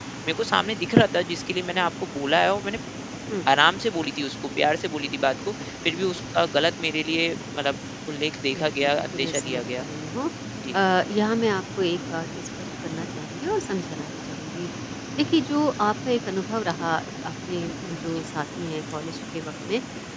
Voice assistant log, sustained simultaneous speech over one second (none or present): present